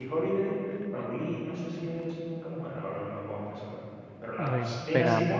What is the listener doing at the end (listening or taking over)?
listening